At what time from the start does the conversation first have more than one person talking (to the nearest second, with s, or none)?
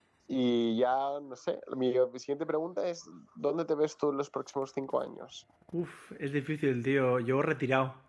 none